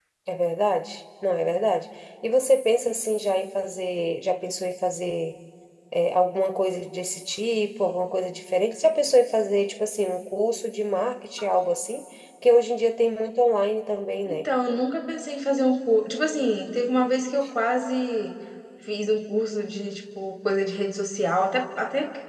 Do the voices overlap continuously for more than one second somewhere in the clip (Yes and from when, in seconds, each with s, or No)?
No